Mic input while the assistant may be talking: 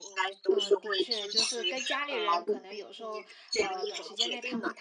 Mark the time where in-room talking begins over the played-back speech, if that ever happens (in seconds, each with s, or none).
0.5 s